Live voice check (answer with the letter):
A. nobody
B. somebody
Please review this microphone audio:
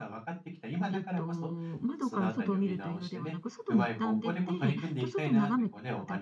B